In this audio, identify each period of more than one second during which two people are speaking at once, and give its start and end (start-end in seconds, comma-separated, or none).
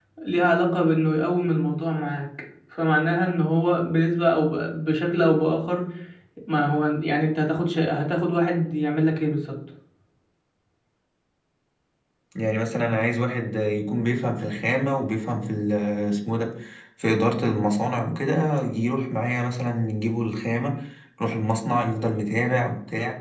none